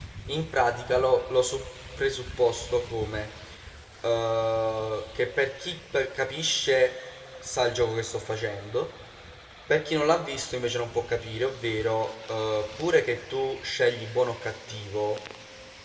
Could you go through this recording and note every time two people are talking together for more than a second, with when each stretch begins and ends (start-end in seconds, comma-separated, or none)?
none